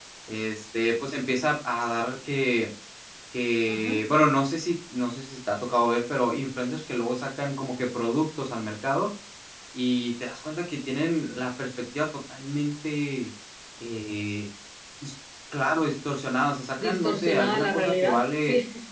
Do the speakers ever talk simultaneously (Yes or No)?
Yes